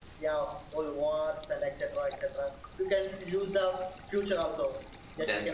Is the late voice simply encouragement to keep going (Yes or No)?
Yes